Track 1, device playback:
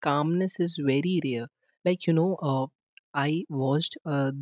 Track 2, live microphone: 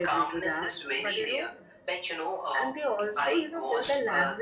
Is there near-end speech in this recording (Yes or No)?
Yes